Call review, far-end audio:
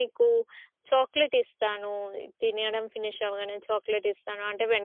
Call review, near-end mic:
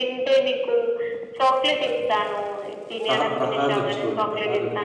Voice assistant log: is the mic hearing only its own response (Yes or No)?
No